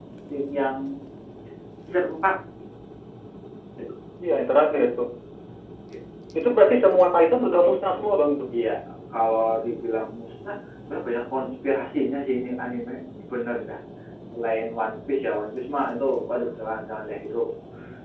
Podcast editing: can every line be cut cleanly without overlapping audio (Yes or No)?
Yes